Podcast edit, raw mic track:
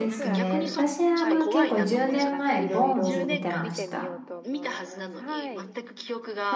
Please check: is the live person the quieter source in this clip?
No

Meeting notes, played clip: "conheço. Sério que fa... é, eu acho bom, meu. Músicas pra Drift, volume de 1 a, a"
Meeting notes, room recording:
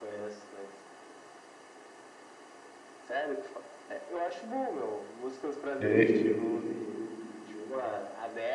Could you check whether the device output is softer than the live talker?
Yes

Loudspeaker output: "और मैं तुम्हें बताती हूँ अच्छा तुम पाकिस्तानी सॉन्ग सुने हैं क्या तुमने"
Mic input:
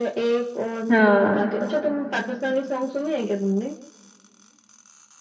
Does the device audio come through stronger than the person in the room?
No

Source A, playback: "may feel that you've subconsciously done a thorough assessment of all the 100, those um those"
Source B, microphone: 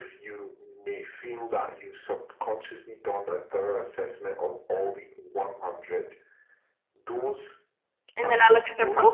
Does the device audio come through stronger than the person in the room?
No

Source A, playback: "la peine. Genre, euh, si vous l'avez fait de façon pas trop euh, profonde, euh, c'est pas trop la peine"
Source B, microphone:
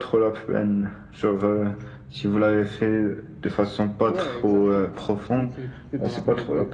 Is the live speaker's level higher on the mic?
No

